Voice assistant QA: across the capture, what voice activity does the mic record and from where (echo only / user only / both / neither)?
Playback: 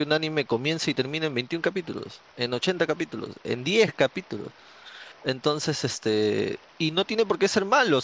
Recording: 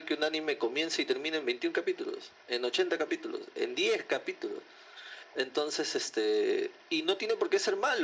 echo only